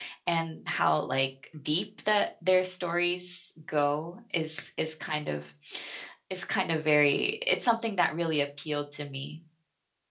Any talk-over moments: No

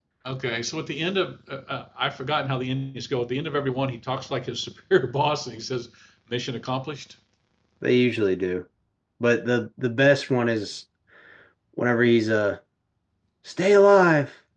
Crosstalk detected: No

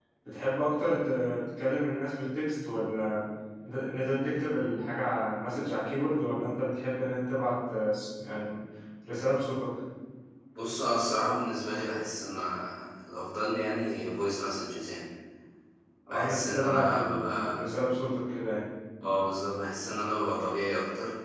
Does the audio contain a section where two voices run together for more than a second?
Yes, from 16.1 s

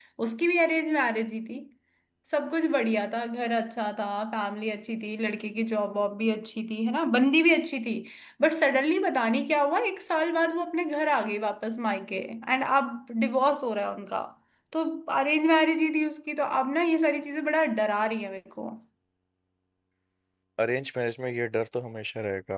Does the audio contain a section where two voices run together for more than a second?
No

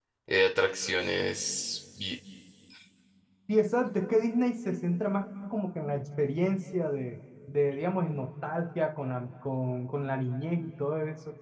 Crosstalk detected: No

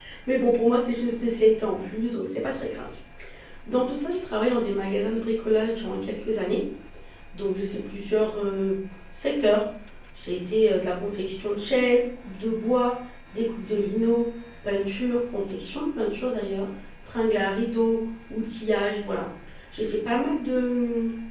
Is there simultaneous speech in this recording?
No

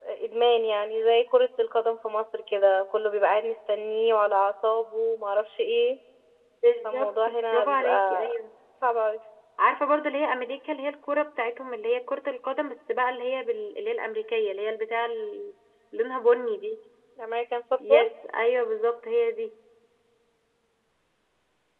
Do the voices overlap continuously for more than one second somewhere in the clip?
Yes, from 6.8 s

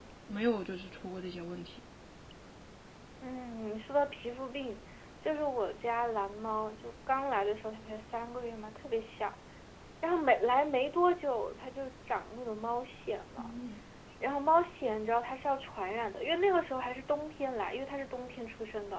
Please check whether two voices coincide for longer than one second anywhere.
No

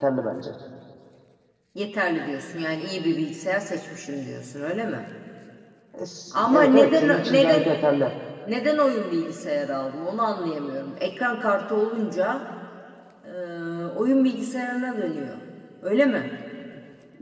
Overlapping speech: Yes, from 6.3 s

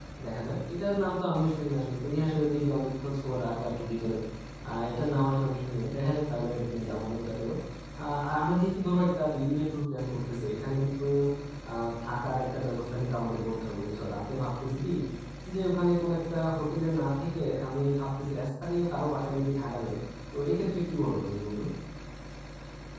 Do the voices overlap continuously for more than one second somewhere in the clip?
No

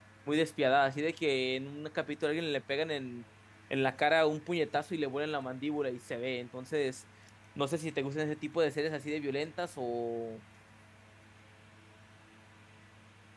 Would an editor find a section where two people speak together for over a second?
No

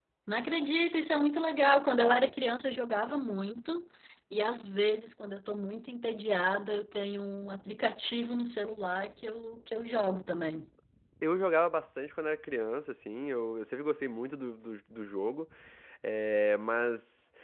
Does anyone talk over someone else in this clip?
No

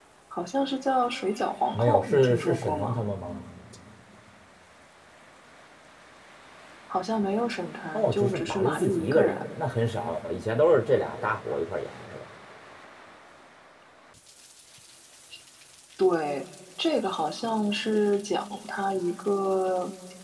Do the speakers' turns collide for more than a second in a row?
Yes, from 1.7 s

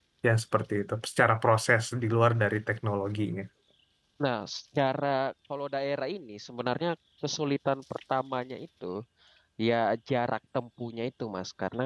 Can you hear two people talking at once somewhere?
No

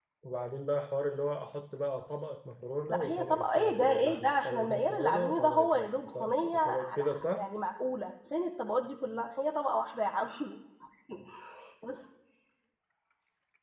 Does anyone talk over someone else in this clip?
Yes, from 2.9 s

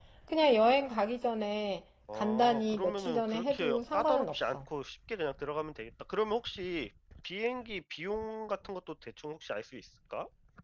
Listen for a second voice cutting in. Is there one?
Yes, from 2.1 s

